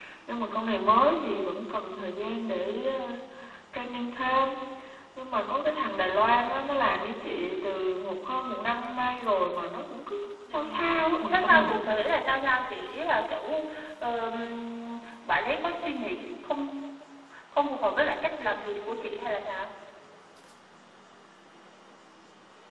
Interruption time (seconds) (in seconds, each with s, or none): 10.5 s